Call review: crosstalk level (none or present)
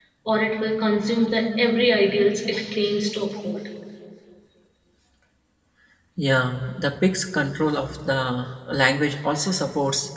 none